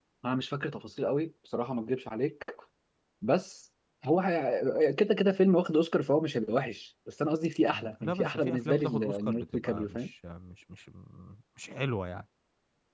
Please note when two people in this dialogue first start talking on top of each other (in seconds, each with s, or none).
7.7 s